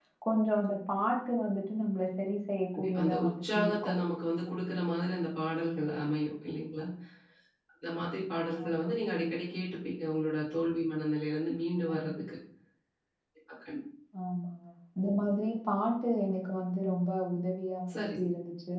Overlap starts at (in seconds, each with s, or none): 2.8 s